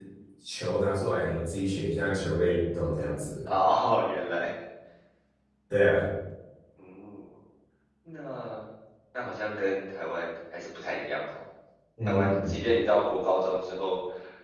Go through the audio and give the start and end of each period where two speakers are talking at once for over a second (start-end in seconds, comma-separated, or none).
none